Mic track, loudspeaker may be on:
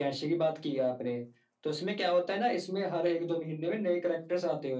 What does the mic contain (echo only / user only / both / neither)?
echo only